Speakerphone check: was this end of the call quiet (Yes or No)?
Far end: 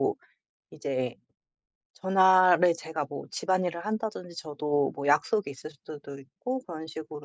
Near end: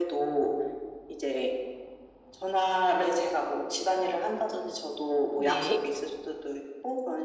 No